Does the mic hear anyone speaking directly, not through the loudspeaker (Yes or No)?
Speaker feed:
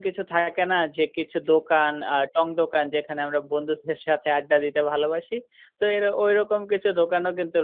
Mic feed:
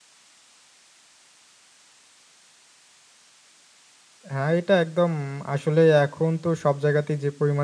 Yes